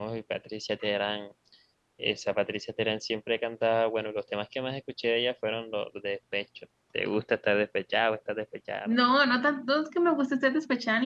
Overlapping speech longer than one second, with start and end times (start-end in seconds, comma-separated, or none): none